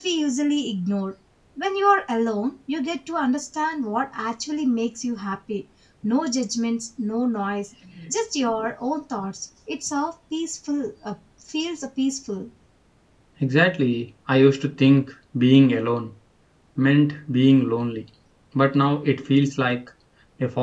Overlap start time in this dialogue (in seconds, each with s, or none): none